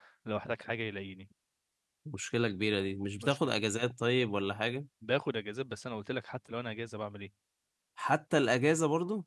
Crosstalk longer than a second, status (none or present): none